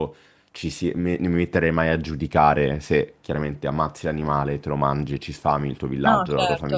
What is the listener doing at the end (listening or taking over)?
listening